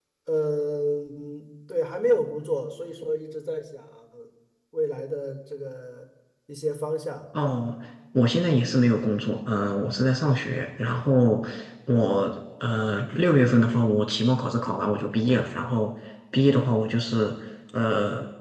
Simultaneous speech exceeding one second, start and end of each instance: none

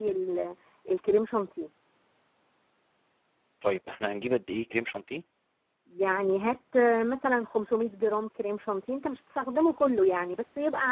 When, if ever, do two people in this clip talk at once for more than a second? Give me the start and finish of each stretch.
none

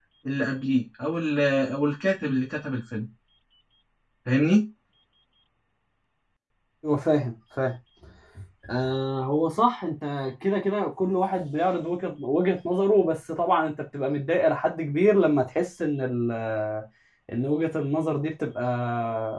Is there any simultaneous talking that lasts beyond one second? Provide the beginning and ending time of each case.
none

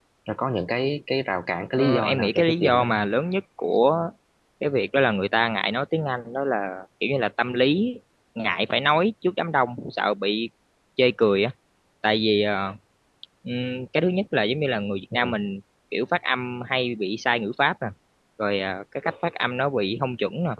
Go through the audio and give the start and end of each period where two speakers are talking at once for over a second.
1.8-3.0

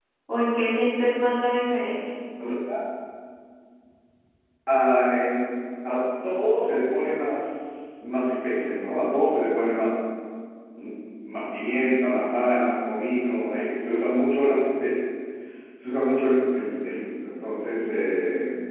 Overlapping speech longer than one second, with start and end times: none

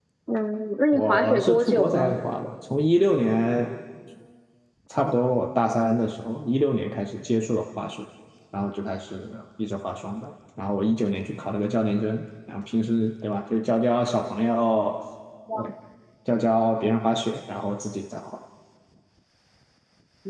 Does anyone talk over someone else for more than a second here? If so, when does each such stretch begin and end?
0.9-2.2

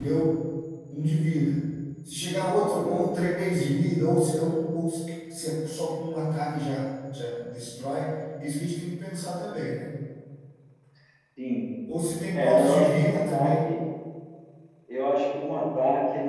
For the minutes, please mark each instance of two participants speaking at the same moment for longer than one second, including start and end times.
12.3-13.6

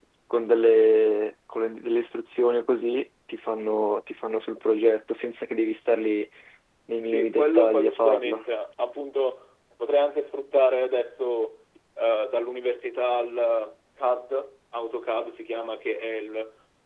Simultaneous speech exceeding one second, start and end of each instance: 7.0-8.4

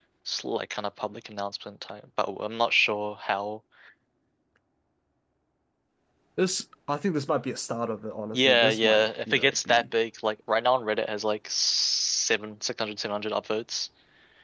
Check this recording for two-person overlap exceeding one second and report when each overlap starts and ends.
8.3-9.8

